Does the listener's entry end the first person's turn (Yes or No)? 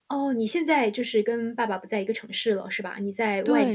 Yes